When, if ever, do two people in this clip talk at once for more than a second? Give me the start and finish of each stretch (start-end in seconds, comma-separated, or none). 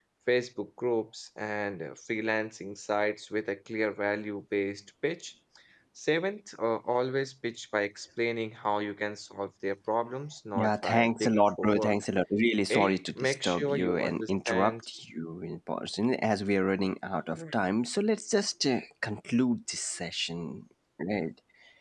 10.6-11.9, 12.7-14.8